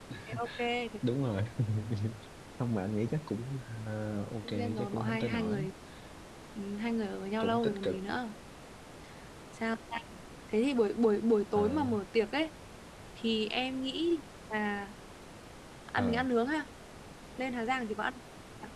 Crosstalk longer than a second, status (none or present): present